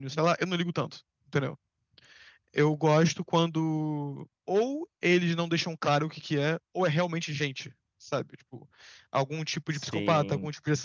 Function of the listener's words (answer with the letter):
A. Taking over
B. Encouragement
B